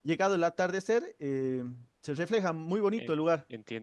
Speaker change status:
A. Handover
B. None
A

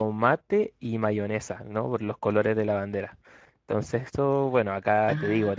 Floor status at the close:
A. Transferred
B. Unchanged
B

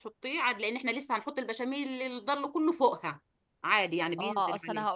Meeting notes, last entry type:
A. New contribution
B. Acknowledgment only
A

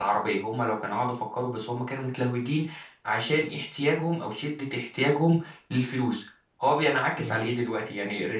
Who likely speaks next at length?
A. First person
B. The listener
A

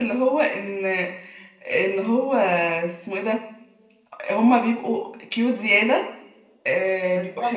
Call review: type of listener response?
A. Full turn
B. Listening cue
B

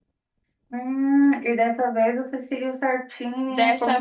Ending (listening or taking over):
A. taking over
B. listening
A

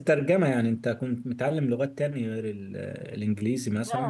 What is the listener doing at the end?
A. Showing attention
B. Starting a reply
B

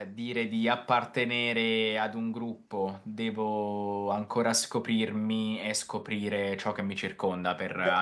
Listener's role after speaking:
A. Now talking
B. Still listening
A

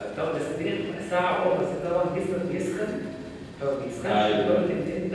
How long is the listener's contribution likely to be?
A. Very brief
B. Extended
A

